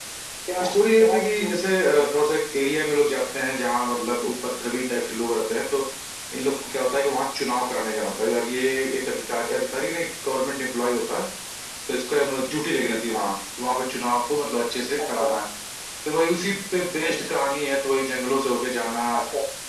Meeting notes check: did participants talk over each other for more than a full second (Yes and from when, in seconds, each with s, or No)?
Yes, from 0.6 s